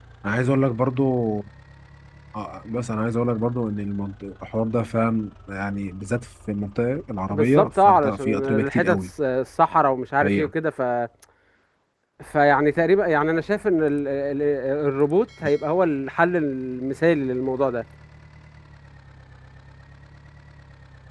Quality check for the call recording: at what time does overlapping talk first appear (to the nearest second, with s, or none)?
7 s